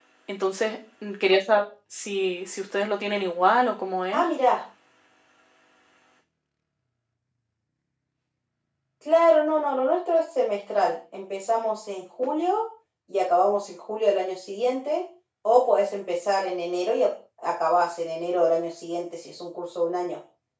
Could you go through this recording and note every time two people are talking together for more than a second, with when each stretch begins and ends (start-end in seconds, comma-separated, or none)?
none